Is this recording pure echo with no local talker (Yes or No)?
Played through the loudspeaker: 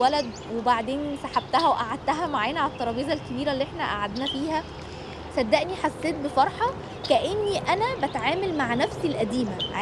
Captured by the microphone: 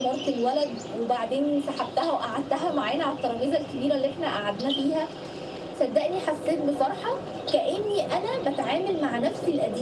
Yes